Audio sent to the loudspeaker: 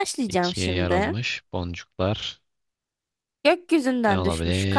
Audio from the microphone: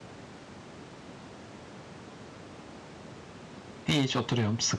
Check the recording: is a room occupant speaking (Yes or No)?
Yes